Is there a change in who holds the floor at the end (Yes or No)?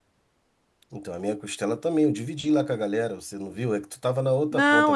Yes